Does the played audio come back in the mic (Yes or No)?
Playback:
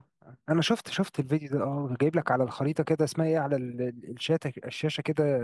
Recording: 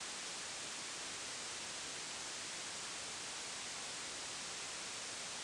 No